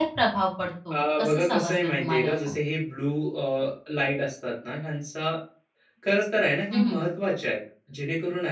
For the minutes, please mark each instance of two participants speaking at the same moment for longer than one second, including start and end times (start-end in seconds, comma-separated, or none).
0.9-2.5